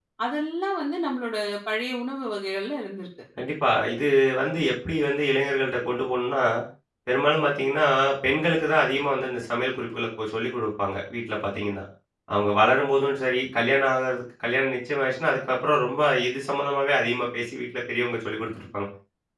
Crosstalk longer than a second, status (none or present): none